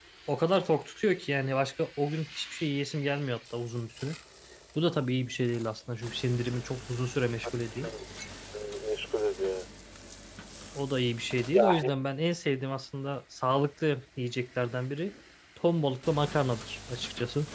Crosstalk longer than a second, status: none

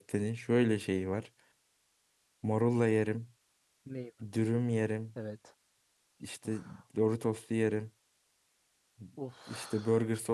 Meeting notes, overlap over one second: none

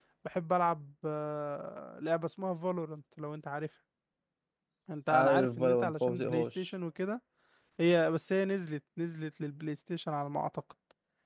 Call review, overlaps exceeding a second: present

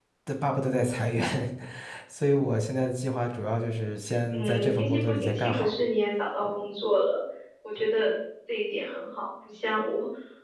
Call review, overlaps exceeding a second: present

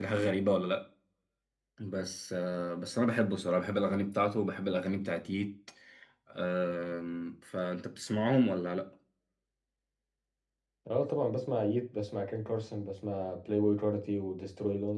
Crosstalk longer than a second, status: none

